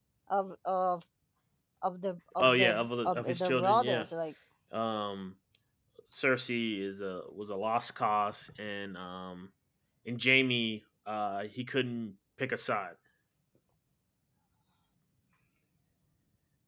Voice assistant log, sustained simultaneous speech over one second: present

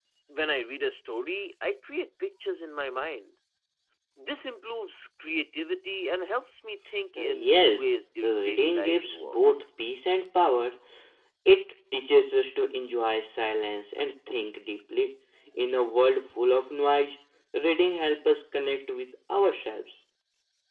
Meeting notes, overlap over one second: present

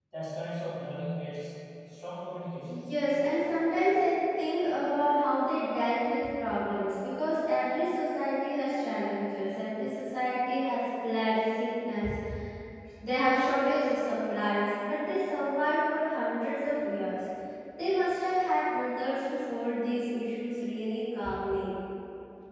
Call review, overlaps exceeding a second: none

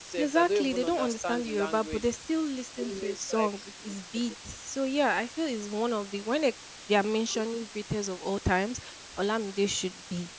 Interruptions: present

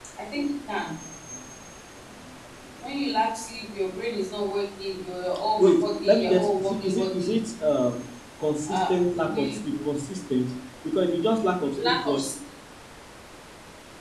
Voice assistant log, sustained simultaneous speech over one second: present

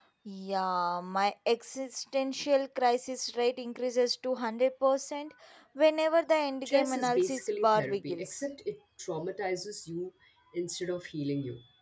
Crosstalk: present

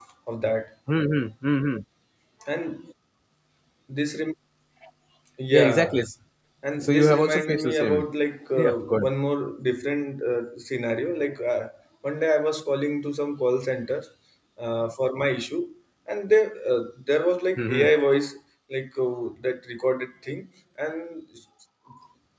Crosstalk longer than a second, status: present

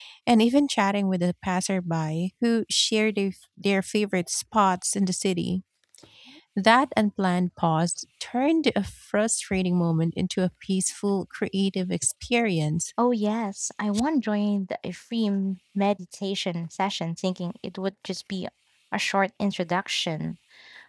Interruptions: none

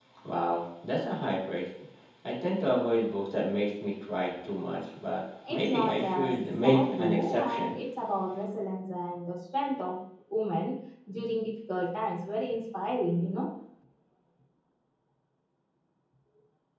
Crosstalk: present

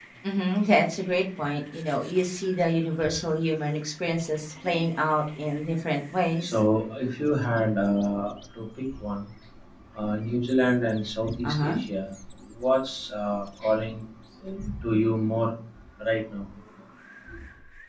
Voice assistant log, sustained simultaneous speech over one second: none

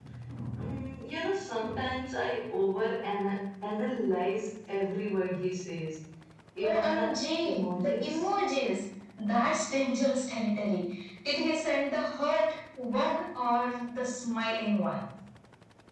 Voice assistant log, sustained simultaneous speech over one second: present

